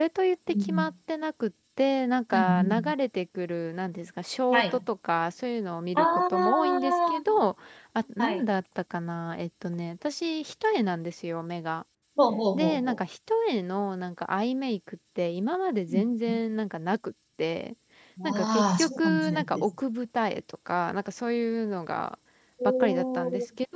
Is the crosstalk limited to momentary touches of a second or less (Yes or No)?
No